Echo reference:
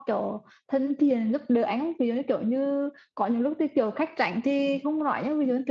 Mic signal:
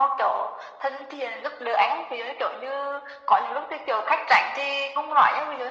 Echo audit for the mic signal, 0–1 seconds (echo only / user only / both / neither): echo only